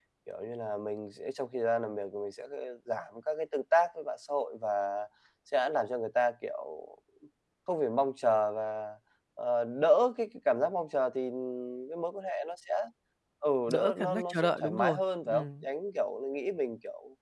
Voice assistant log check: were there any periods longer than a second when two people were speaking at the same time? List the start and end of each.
13.7-15.6

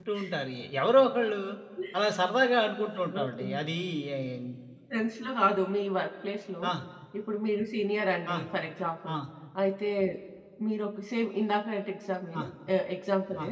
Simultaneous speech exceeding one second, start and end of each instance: none

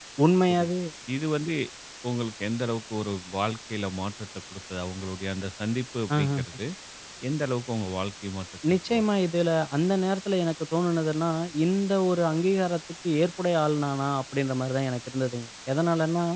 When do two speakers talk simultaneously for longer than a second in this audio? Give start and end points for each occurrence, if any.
none

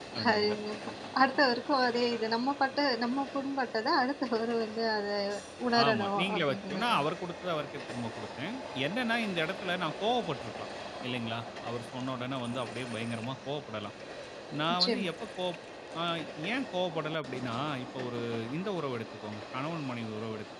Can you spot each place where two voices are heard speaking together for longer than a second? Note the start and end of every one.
5.8-7.1

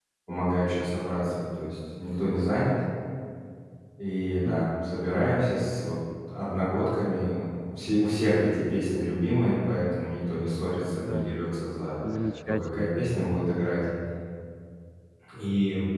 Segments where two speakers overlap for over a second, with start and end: none

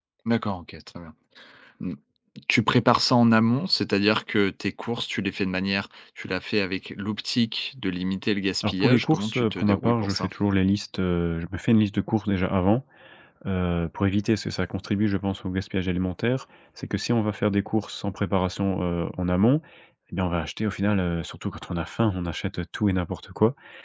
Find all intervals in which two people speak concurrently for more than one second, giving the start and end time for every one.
8.6-10.3

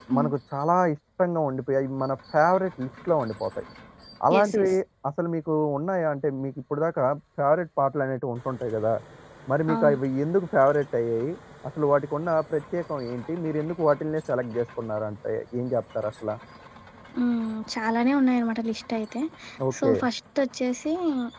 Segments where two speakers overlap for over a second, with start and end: none

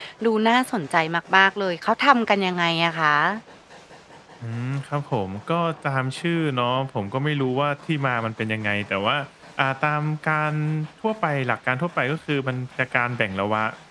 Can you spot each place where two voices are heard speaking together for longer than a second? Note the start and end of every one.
none

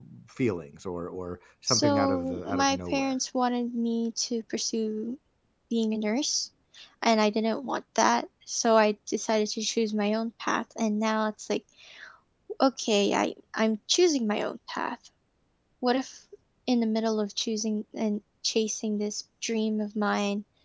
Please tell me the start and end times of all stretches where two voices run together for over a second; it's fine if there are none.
1.7-3.1

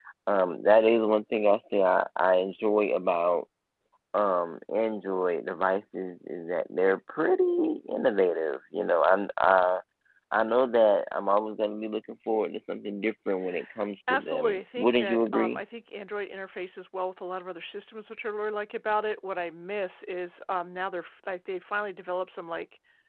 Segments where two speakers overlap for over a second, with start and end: 14.1-15.6

